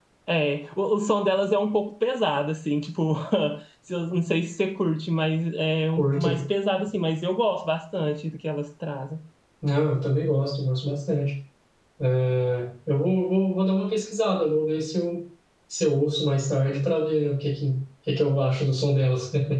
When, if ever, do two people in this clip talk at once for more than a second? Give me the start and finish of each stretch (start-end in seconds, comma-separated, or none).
none